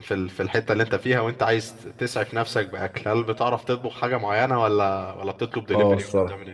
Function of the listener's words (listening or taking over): taking over